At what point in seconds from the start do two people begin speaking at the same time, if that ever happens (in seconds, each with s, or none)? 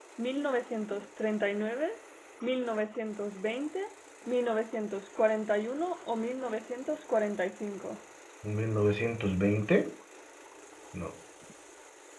none